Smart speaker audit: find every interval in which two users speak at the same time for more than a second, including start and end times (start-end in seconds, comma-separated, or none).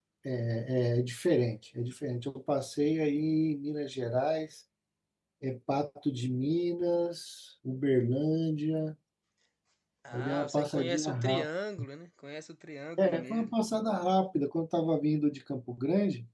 10.1-11.5